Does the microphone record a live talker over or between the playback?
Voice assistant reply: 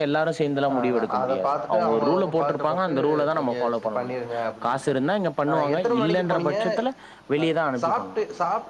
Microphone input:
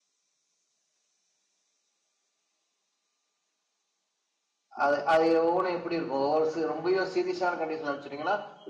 Yes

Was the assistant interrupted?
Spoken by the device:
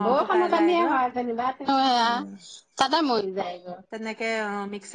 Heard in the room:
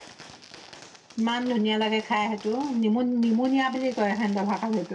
Yes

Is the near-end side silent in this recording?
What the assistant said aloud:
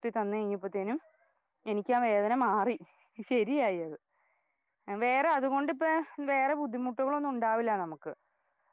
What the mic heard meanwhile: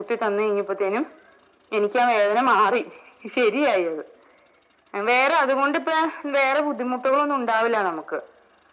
Yes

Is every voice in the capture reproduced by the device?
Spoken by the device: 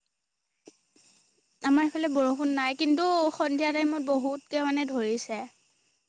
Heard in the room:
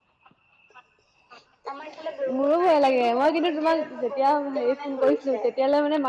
No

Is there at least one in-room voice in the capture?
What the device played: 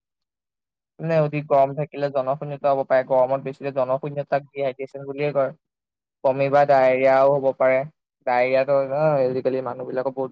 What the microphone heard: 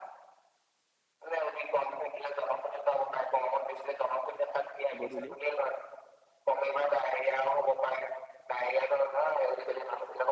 Yes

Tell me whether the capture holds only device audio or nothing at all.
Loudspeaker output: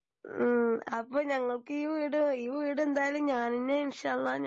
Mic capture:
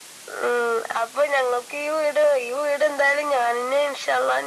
Yes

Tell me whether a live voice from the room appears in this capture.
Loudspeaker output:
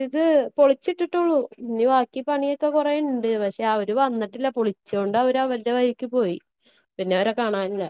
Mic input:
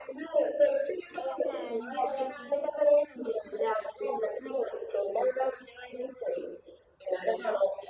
Yes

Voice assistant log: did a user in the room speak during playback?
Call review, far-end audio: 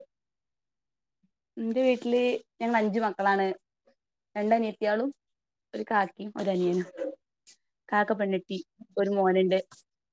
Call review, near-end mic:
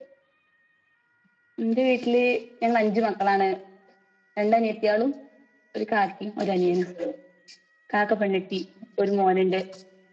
No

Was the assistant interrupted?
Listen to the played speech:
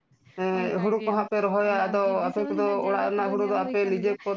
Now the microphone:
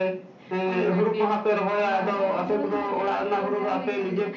Yes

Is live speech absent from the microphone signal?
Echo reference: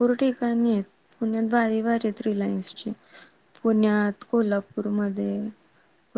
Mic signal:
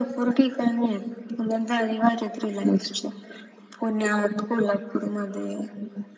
Yes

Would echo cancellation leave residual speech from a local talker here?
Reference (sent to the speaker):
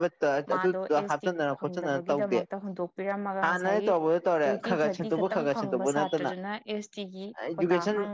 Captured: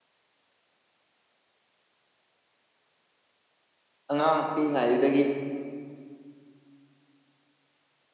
Yes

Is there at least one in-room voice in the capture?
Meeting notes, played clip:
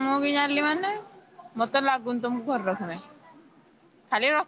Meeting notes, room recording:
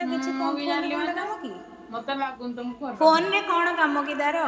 Yes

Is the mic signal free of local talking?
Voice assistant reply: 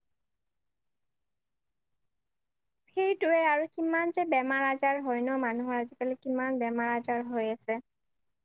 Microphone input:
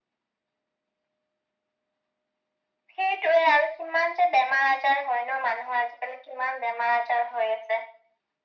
Yes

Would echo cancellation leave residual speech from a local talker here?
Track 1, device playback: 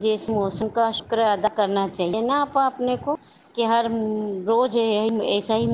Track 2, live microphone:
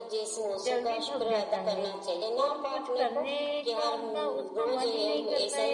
Yes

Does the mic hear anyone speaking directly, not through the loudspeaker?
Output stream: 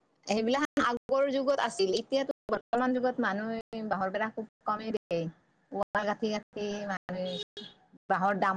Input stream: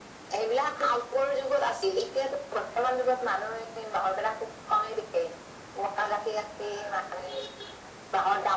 No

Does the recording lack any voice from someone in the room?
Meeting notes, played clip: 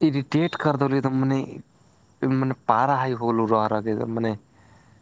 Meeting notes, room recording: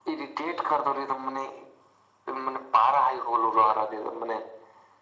Yes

